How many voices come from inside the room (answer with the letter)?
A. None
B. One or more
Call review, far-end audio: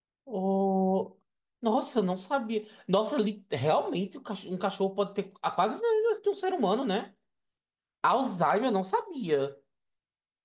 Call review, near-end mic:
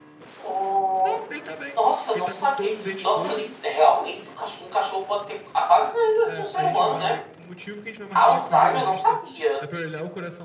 B